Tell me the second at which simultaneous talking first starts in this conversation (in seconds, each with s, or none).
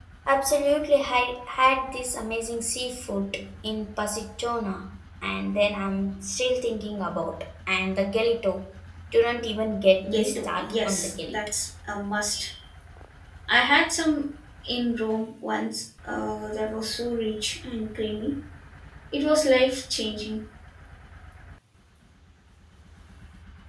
10.0 s